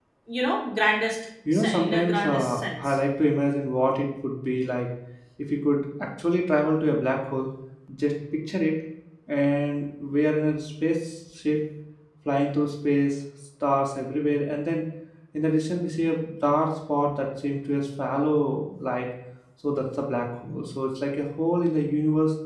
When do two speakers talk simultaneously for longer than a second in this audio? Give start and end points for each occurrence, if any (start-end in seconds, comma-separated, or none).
1.5-3.0